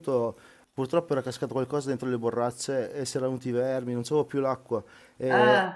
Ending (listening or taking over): listening